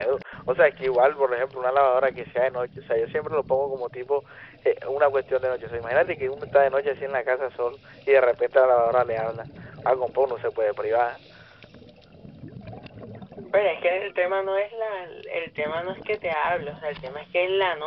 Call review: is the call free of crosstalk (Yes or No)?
Yes